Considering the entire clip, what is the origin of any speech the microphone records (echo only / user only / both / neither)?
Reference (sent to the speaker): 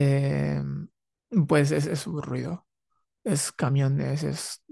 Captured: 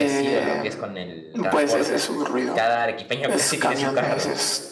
both